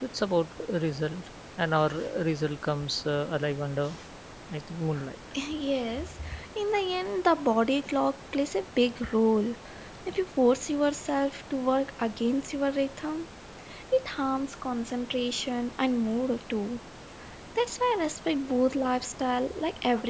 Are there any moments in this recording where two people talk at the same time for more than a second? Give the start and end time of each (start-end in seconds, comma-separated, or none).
none